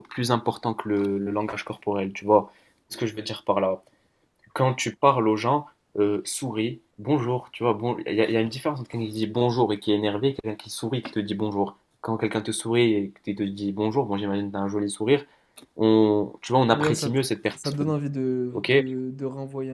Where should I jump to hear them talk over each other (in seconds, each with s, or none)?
16.7 s